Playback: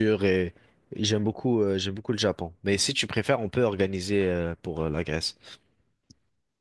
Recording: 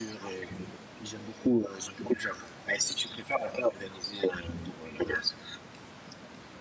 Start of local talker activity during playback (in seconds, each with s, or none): none